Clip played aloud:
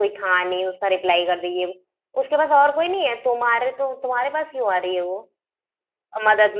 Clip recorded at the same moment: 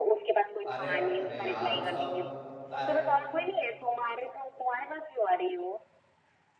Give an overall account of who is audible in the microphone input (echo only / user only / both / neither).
both